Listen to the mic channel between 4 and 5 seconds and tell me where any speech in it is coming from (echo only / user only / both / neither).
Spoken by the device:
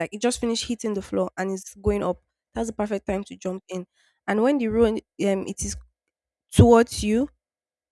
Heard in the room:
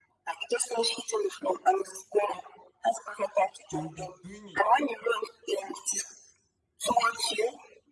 both